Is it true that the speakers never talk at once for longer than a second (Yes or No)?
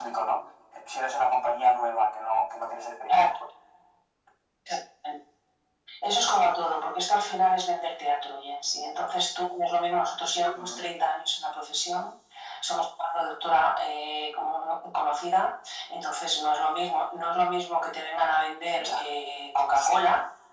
Yes